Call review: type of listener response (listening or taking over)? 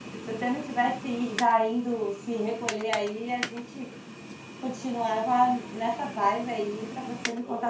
taking over